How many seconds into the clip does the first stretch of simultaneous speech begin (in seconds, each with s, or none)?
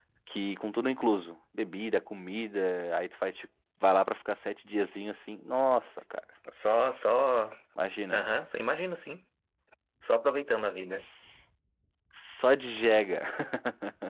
none